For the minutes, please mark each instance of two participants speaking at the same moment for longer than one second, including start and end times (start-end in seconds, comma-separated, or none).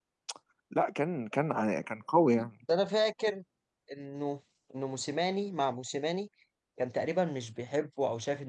none